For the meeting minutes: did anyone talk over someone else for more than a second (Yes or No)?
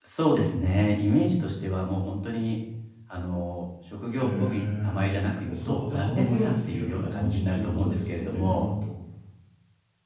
Yes